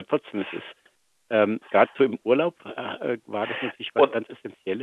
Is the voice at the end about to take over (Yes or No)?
No